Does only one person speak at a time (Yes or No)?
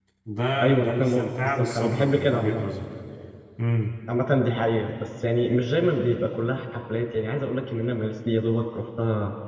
No